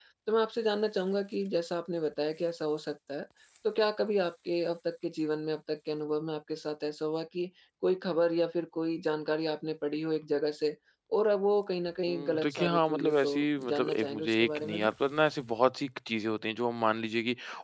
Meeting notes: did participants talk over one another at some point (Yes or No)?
Yes